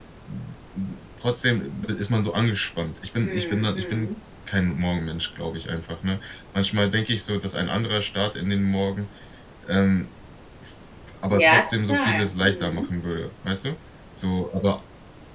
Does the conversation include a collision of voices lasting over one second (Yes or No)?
Yes